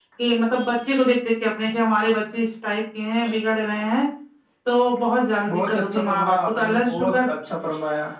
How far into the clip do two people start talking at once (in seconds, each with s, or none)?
5.5 s